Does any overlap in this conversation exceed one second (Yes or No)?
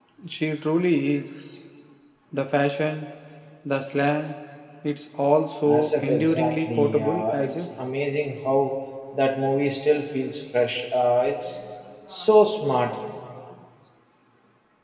Yes